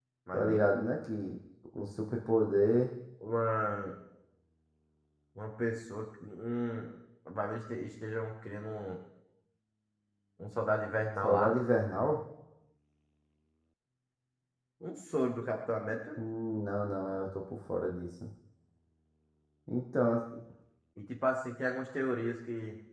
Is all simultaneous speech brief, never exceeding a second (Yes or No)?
Yes